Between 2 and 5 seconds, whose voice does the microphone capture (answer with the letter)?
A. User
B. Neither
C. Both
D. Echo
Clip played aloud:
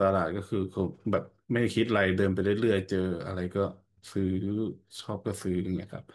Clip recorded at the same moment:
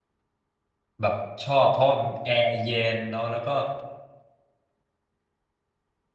A